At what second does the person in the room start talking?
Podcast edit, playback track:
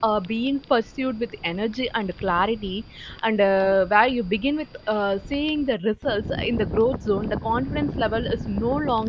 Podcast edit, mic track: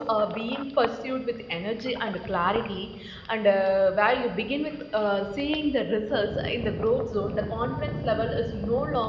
none

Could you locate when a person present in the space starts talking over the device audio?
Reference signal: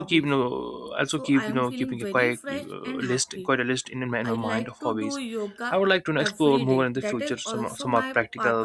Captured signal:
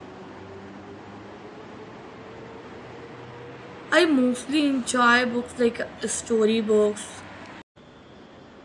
3.9 s

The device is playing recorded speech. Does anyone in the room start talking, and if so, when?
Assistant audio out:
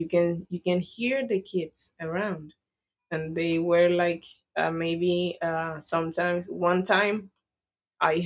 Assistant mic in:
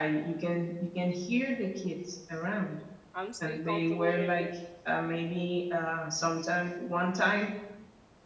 3.1 s

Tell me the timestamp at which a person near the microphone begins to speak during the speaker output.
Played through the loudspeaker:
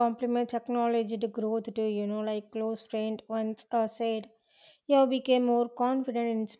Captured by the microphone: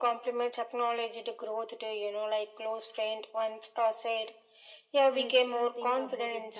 5.1 s

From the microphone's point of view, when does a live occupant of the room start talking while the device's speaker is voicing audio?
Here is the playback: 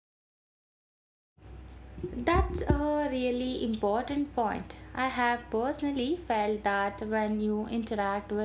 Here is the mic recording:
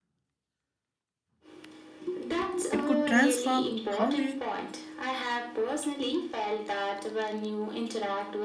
2.7 s

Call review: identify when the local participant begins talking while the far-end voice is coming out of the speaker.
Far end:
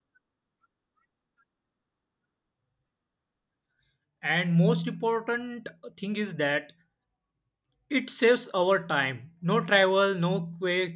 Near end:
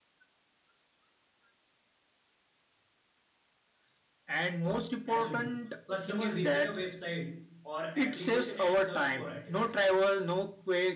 5.0 s

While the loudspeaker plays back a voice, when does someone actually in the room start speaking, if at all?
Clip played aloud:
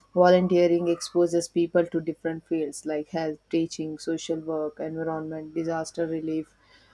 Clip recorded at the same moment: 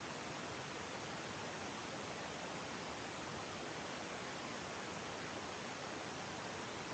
none

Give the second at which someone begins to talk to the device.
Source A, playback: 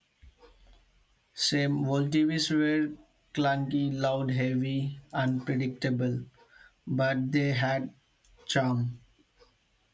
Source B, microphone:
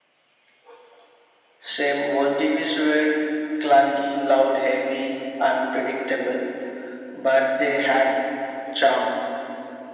none

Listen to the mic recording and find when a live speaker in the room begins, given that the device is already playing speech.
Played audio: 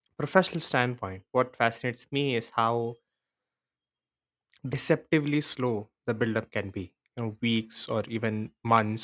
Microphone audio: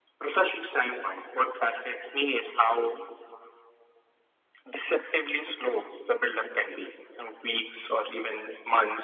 none

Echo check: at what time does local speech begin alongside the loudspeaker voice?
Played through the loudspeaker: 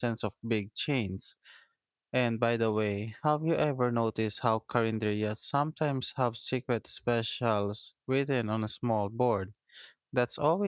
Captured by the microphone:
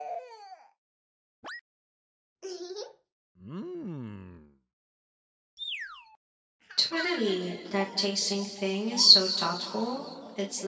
6.8 s

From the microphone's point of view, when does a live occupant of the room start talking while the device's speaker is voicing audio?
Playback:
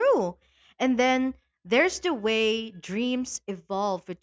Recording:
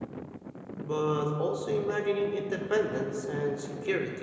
0.8 s

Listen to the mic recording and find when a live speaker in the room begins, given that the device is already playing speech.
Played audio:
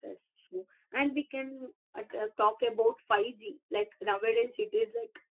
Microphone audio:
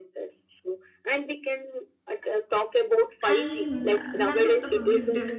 3.3 s

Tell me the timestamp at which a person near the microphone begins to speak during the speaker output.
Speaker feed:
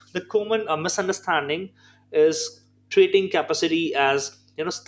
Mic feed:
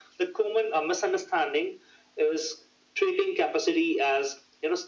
none

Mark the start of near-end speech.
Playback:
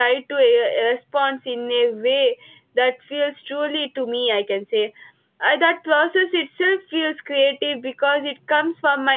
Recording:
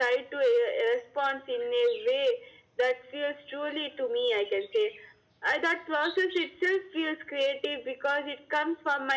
none

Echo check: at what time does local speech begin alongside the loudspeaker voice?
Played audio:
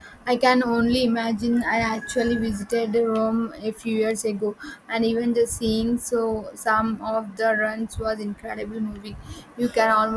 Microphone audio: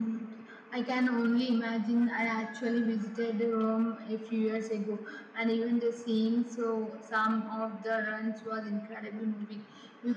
none

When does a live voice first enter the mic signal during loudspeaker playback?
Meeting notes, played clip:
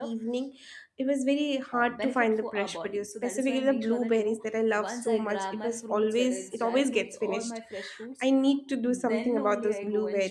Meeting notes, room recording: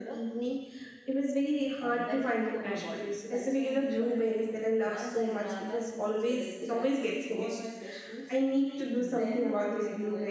none

